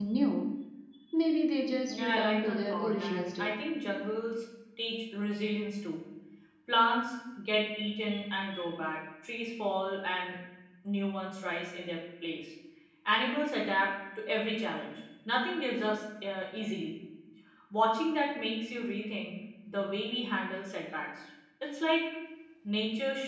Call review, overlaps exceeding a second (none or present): present